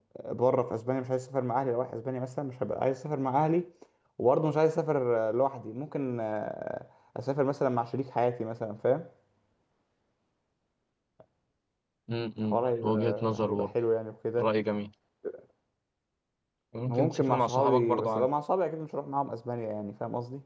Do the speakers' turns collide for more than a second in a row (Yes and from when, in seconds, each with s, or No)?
Yes, from 12.5 s